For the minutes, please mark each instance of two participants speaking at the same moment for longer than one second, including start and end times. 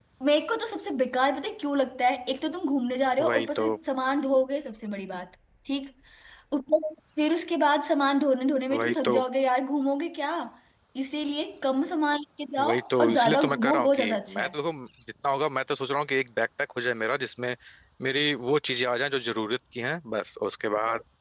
12.6-14.5

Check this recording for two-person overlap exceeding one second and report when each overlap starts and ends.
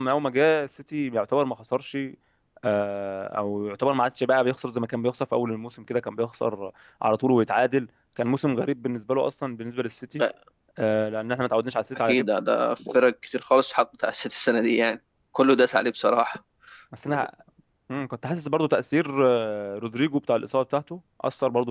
none

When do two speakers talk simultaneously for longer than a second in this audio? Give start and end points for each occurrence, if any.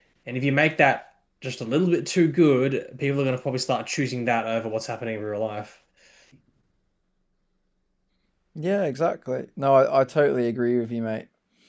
none

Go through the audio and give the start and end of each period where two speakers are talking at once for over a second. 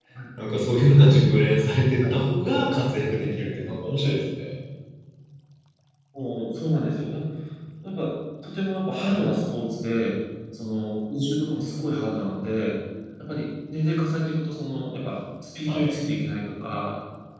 none

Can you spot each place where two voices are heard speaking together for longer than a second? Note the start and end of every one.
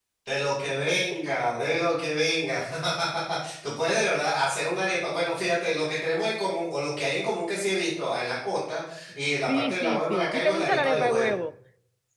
9.5-11.3

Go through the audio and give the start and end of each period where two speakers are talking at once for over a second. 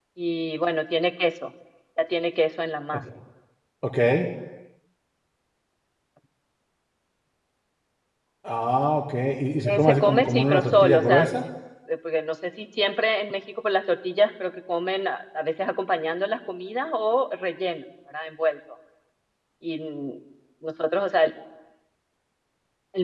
9.7-11.3

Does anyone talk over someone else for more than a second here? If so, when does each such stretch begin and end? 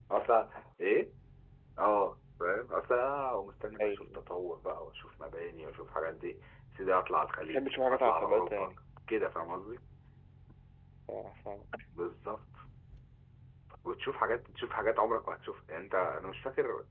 7.4-8.8

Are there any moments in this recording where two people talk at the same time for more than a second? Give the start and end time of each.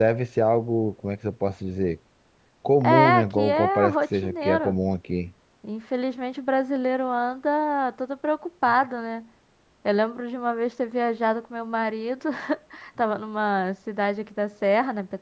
2.8-4.8

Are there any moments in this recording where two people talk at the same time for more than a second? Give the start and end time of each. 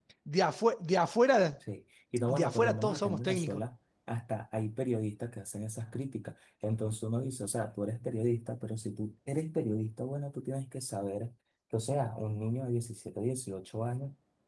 2.3-3.6

